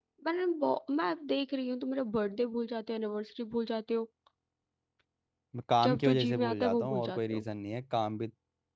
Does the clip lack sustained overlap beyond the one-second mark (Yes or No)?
No